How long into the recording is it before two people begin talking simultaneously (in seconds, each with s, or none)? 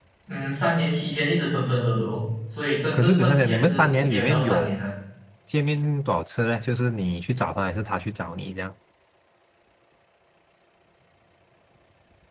2.9 s